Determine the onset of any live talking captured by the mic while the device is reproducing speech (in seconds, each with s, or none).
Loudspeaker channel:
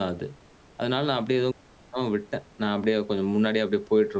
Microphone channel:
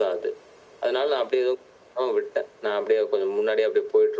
none